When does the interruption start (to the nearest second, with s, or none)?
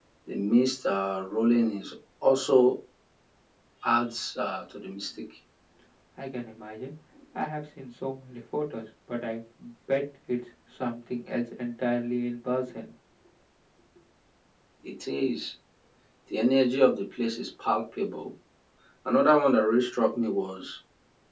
none